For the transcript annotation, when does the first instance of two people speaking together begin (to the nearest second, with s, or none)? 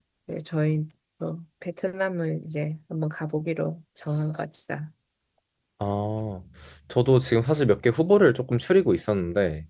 none